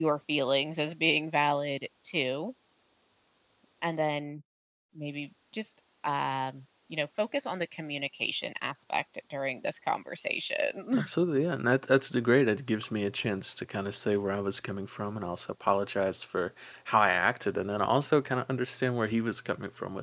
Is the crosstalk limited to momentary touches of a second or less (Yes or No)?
Yes